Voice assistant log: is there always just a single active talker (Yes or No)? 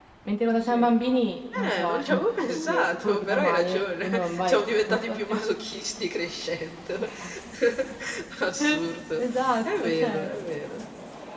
No